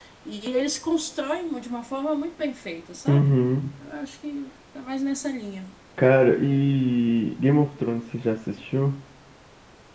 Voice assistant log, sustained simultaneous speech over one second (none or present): none